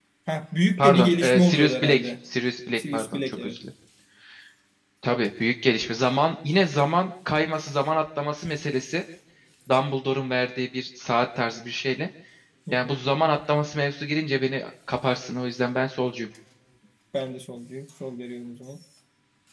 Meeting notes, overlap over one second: present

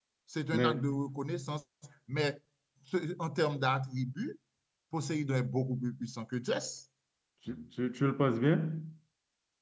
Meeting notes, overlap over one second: none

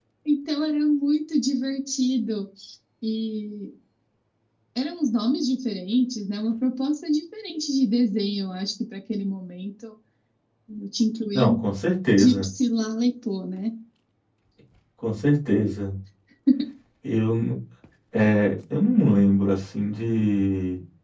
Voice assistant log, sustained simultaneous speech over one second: none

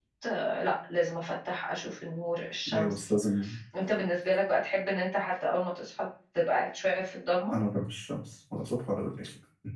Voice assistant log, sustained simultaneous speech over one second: none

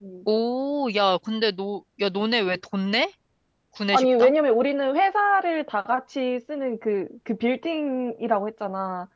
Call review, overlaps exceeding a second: none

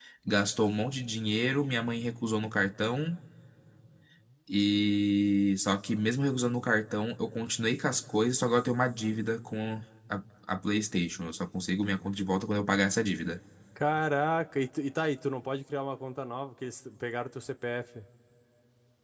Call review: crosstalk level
none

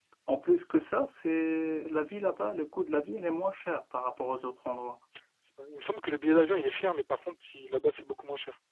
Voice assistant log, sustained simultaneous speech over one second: none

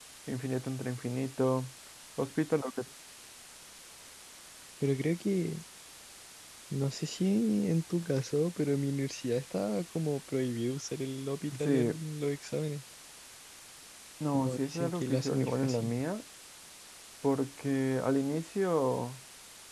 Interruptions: present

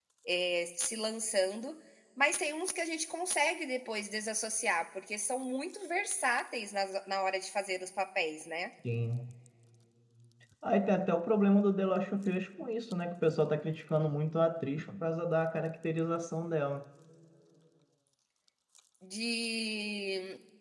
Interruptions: none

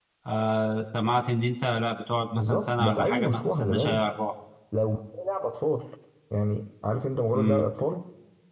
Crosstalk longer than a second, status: present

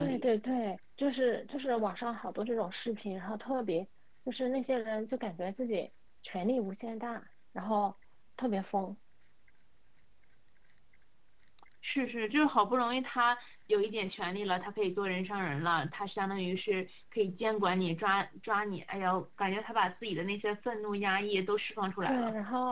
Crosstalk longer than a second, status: none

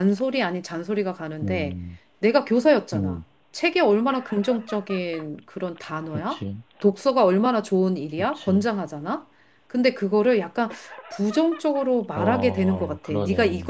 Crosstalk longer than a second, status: present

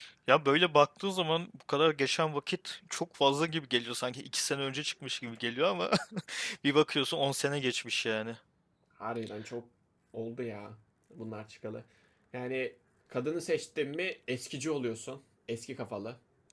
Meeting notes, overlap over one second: none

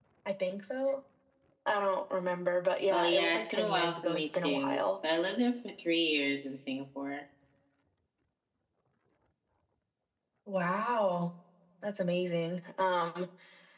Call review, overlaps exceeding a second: present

